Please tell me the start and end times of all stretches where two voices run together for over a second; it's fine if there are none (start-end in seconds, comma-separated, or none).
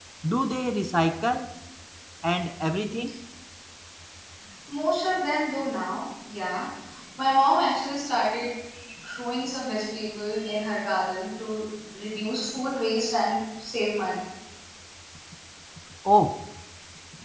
none